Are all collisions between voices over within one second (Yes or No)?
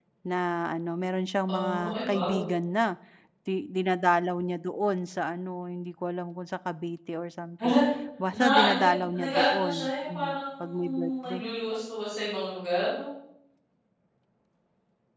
No